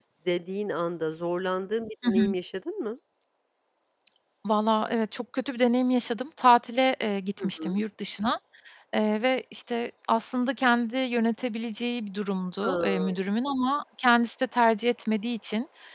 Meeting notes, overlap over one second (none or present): none